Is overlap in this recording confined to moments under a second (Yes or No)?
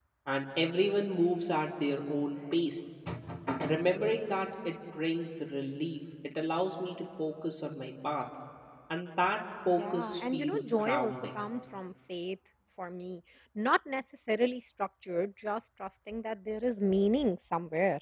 No